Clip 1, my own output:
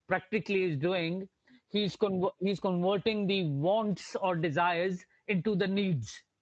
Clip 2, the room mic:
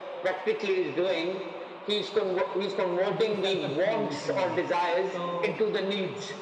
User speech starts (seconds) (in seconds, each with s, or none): 3.1 s